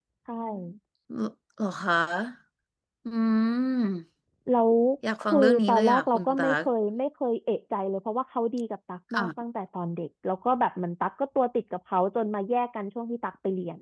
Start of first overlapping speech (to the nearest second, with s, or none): 5 s